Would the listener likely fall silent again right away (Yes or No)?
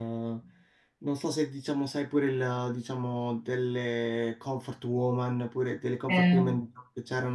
Yes